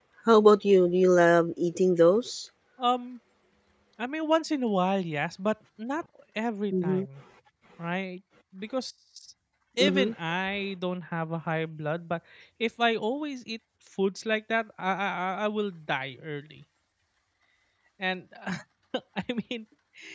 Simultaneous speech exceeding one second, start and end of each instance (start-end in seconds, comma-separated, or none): none